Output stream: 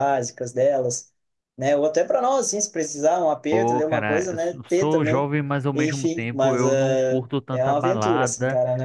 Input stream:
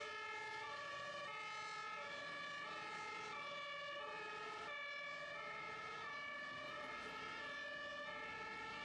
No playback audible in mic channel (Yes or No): Yes